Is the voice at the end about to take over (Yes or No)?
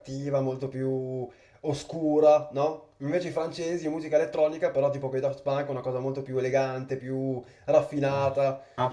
Yes